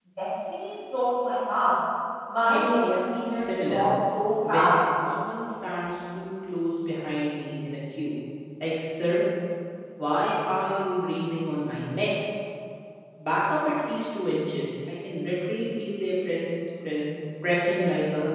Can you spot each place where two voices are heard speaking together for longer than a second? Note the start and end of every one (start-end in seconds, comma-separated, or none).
2.5-3.9